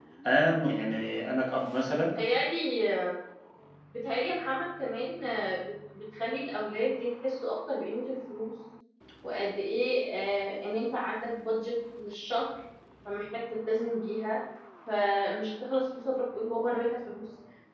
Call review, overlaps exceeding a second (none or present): none